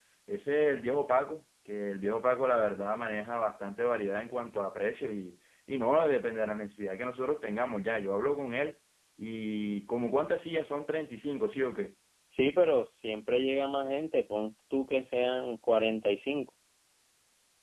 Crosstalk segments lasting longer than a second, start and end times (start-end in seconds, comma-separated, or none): none